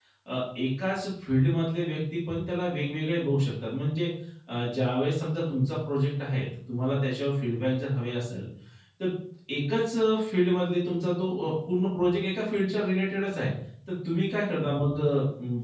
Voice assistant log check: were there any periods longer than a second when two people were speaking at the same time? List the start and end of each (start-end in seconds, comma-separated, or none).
none